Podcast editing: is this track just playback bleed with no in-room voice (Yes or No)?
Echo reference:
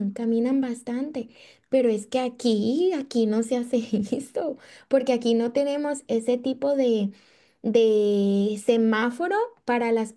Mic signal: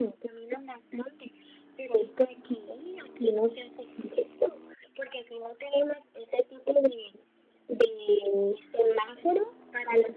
Yes